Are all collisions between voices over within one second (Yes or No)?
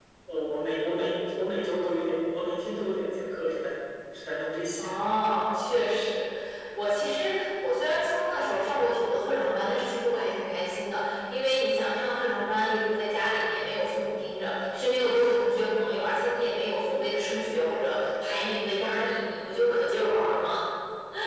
Yes